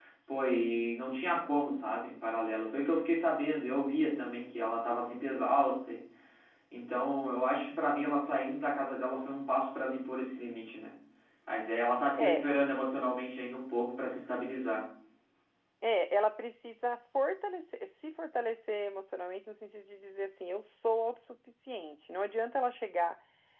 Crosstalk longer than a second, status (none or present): none